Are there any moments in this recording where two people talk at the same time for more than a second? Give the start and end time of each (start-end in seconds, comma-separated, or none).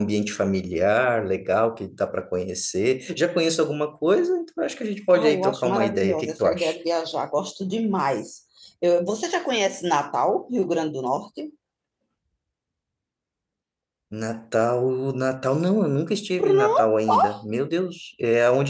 5.1-6.7